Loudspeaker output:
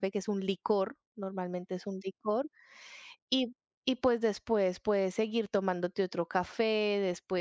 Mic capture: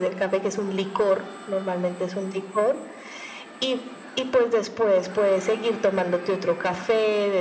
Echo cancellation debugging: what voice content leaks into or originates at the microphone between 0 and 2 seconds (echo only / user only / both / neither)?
echo only